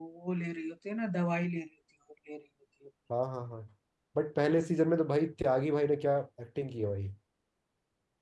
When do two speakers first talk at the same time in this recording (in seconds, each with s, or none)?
none